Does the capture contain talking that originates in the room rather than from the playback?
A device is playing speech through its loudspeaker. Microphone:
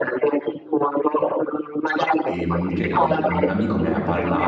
Yes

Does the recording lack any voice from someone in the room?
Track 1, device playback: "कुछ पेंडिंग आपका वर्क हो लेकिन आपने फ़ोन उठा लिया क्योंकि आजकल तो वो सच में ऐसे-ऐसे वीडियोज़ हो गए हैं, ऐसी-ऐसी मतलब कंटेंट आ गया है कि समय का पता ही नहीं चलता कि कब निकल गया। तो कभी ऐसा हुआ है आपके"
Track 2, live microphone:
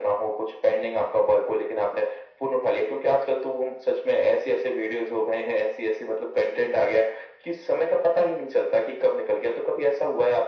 Yes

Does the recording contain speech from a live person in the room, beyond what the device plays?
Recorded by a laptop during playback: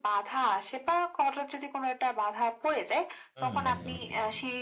Yes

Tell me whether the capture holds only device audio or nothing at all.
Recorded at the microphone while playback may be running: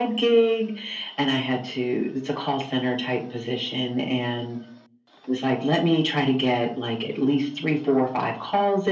Yes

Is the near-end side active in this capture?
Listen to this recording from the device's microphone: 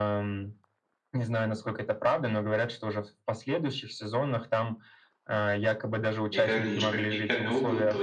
Yes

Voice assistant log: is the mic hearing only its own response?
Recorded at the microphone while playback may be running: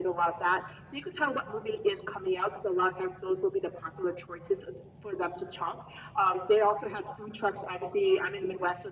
Yes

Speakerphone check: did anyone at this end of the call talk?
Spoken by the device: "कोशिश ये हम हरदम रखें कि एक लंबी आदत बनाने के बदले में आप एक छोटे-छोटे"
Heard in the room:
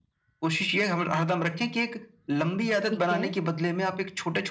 Yes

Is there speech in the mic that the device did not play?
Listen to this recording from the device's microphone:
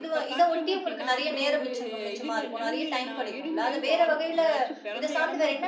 Yes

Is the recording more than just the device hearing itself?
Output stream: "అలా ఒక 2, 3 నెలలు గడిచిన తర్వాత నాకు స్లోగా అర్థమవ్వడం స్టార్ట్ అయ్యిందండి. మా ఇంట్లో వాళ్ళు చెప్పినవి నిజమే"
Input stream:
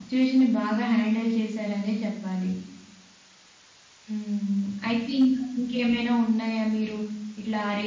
Yes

